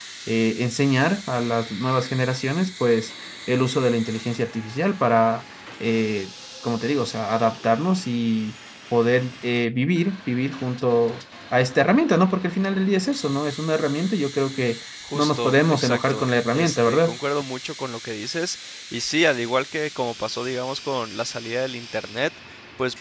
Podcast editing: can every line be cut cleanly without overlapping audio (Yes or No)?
No